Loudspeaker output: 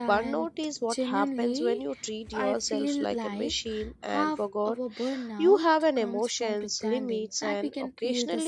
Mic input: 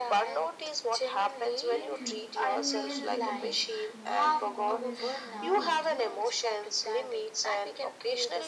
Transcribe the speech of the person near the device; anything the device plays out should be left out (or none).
Like, no, you are a human being, not an always on LED light.